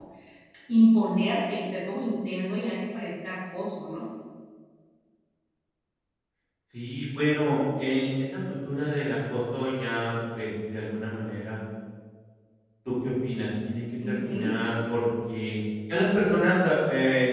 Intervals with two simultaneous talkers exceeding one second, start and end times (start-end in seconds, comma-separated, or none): none